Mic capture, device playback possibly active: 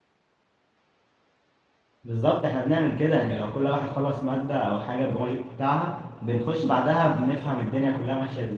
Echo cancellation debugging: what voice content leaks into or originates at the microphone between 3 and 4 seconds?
user only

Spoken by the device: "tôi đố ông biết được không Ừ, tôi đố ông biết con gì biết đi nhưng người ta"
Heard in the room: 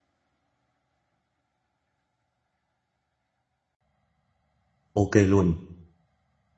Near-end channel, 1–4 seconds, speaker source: neither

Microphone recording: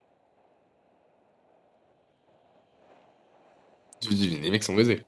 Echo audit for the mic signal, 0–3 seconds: neither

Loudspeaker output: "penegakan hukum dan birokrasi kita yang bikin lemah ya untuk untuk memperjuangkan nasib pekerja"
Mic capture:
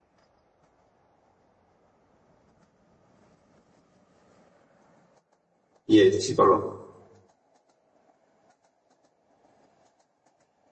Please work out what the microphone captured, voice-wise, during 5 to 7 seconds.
user only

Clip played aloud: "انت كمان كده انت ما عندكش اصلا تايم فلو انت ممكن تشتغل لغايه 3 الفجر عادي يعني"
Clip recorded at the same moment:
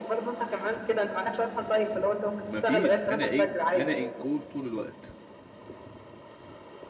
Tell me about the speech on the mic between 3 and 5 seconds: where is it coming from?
both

